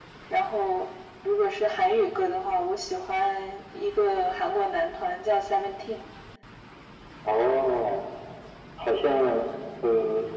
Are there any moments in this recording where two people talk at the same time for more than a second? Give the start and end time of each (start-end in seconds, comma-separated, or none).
none